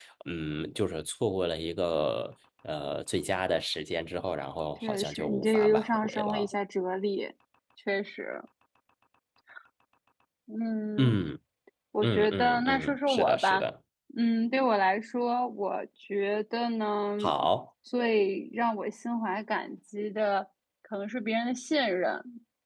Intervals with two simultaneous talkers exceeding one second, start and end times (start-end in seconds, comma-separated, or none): 4.8-6.5, 12.0-13.6